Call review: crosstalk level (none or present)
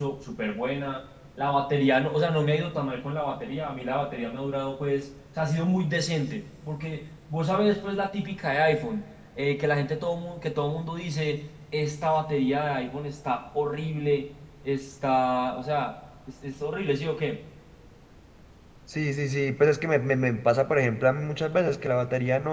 none